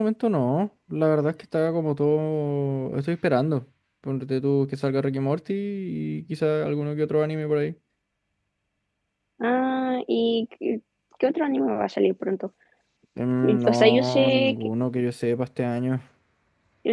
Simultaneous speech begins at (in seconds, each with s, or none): 13.4 s